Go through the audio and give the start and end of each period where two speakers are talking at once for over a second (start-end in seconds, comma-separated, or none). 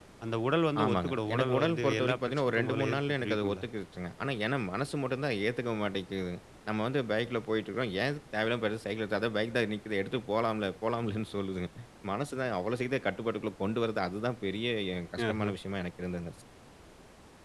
0.8-3.6